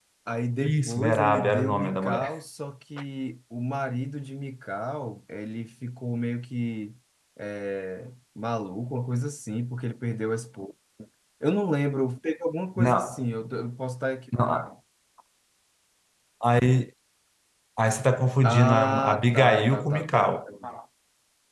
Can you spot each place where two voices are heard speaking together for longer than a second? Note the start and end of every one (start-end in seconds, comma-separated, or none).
0.6-2.4, 18.4-20.3